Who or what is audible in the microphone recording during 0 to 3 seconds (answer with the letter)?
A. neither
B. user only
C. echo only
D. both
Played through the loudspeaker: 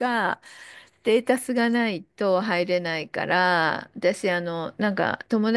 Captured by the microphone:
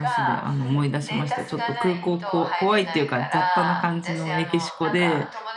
D